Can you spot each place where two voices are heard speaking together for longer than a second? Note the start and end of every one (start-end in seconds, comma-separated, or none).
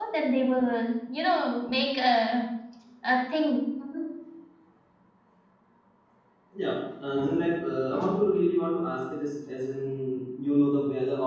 none